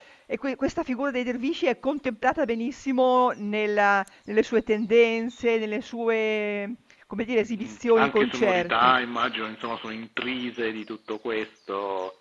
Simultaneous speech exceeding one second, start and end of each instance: 7.6-8.9

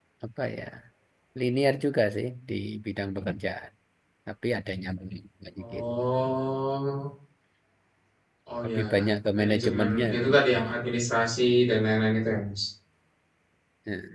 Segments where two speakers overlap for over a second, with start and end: 9.4-10.7

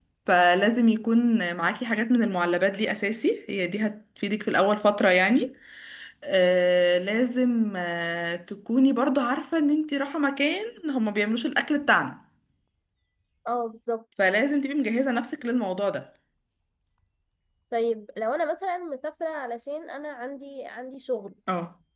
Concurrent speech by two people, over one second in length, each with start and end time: none

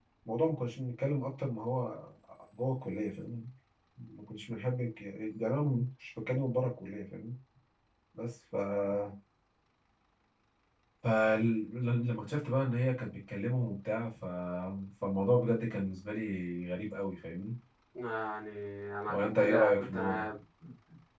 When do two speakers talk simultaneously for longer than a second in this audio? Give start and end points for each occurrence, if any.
19.1-20.3

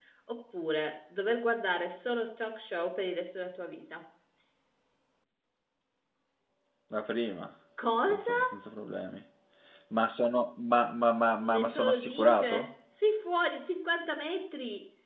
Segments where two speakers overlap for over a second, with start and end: 11.4-12.7

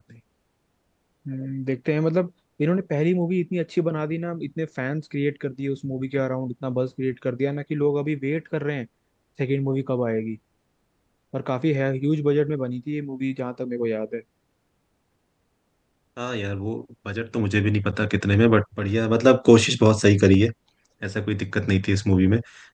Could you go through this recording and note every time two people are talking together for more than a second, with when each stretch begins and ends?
none

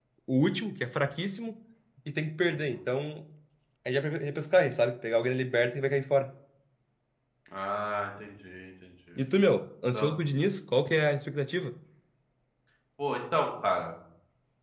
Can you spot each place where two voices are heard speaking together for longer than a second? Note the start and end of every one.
none

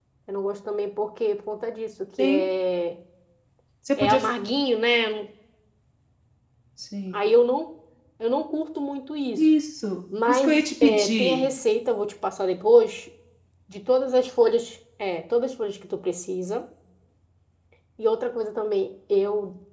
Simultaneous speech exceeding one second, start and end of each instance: 10.3-11.5

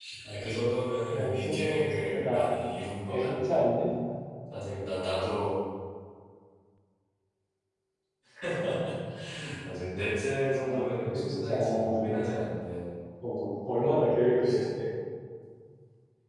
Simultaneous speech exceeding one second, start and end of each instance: 1.1-2.5, 10.4-12.4

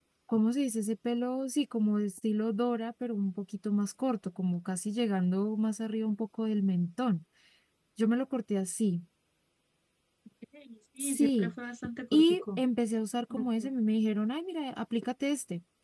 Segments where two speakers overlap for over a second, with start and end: none

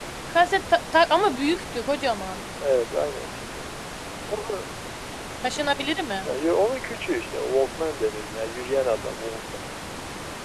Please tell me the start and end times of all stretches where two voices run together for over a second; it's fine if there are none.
none

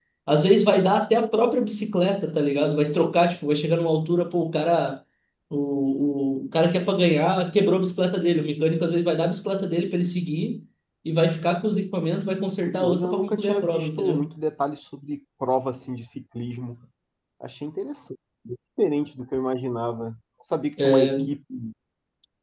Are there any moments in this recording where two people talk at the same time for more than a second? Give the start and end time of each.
12.6-14.3

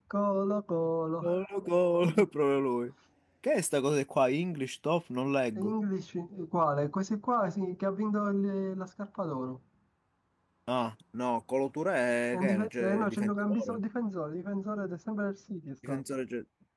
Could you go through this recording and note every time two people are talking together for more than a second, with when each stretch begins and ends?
12.3-13.8

